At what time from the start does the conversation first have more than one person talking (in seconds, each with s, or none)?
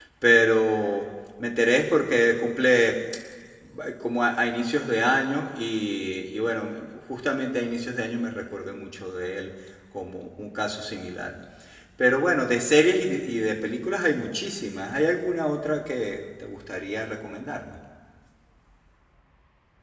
none